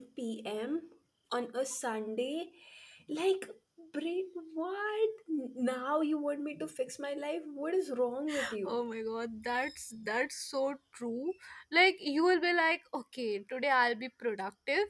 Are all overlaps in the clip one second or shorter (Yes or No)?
Yes